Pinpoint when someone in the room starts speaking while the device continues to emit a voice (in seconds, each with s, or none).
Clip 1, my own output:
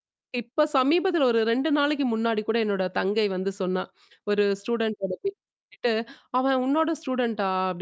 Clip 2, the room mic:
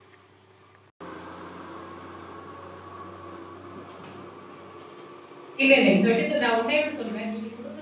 5.6 s